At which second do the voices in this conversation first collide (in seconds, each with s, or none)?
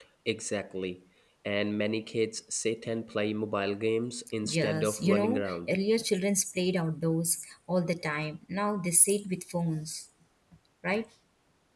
4.4 s